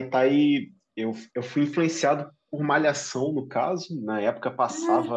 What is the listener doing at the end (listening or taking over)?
listening